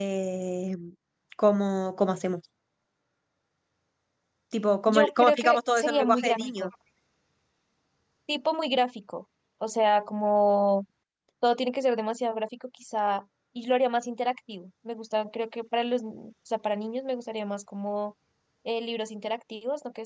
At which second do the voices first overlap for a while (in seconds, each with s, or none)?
4.9 s